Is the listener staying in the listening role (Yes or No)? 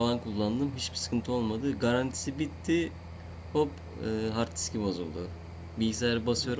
Yes